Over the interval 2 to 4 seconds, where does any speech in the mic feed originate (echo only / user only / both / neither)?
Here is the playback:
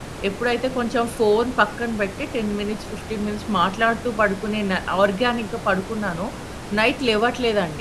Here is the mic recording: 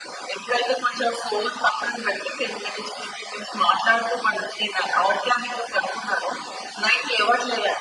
echo only